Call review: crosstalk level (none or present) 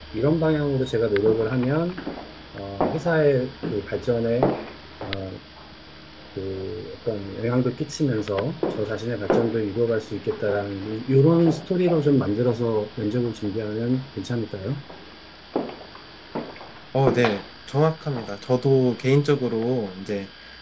none